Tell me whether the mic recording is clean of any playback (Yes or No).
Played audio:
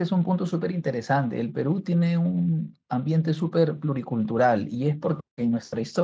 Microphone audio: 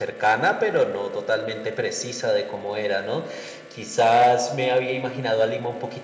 Yes